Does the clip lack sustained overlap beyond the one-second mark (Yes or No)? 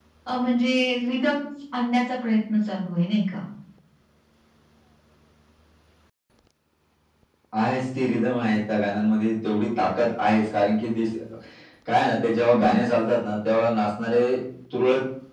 Yes